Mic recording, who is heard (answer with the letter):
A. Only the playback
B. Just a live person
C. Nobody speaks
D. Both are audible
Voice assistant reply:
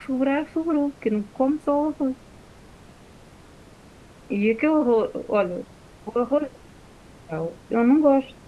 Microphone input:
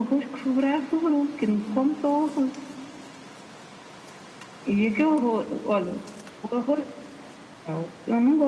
A